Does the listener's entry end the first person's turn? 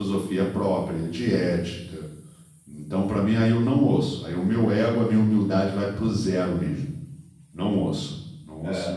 Yes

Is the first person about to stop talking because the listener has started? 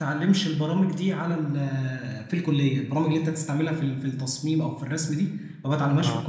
No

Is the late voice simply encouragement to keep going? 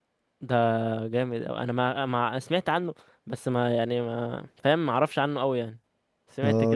No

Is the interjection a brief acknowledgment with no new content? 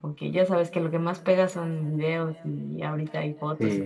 Yes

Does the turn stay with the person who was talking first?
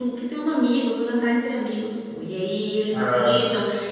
Yes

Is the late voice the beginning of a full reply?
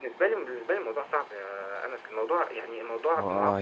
Yes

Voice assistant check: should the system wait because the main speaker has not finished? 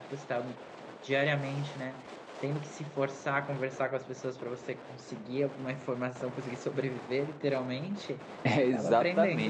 No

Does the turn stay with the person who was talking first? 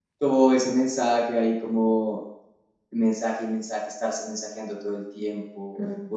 Yes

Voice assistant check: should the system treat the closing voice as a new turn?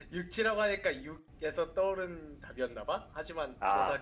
Yes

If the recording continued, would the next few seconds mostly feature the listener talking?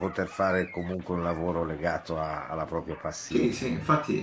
Yes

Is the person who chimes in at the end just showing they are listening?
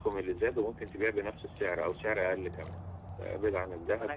No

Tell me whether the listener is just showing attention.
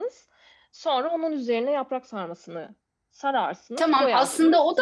No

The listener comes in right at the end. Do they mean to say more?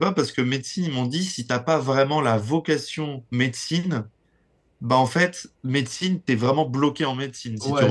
Yes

